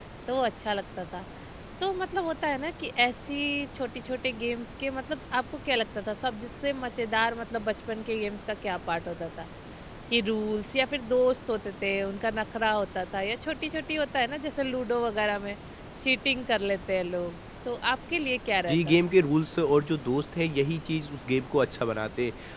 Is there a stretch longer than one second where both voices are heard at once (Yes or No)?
No